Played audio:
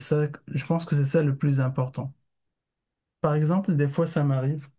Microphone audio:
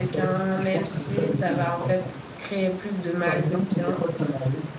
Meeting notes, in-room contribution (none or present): present